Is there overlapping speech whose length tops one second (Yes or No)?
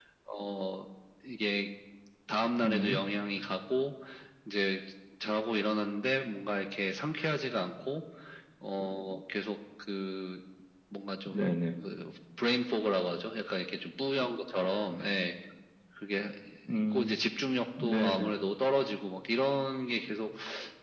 No